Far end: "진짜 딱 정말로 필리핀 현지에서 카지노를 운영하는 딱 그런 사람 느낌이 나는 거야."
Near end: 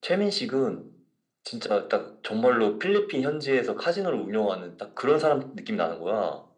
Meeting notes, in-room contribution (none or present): none